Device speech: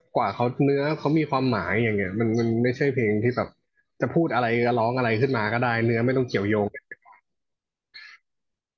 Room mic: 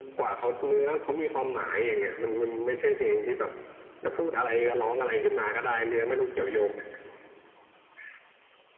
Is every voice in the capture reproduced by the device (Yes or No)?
Yes